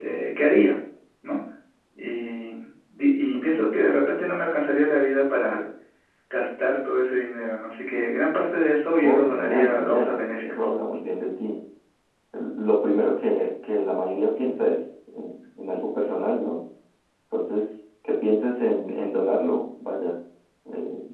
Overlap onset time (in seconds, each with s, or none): 9.0 s